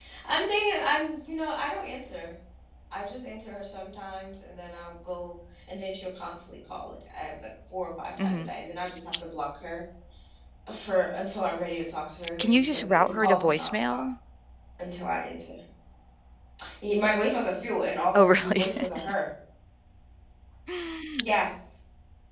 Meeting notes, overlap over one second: present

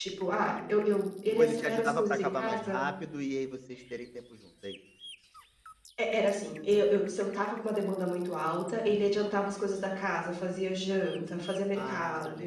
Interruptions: present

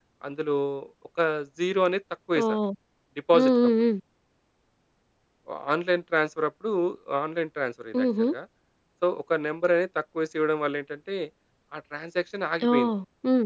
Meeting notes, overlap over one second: none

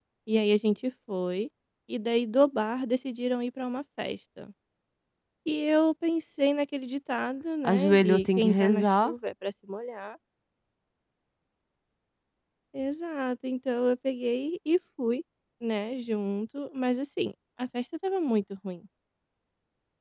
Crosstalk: present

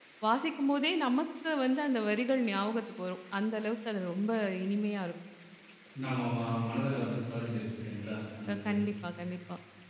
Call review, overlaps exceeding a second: none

